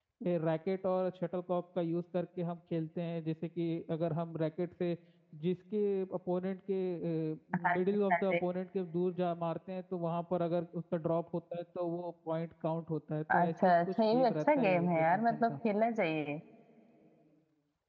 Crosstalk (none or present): present